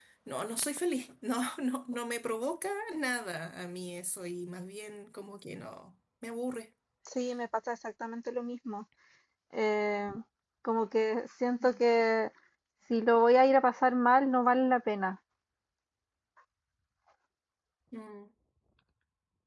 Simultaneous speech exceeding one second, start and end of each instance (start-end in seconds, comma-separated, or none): none